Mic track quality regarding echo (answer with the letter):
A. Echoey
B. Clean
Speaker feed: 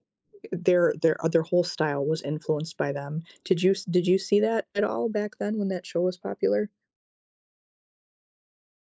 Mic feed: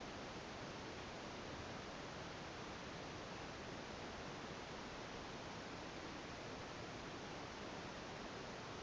B